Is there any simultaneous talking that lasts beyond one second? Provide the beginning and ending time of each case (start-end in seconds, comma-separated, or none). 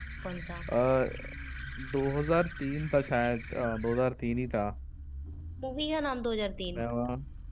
none